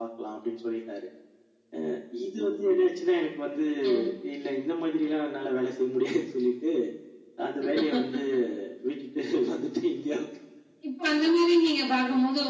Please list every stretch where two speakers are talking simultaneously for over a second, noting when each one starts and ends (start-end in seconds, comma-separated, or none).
none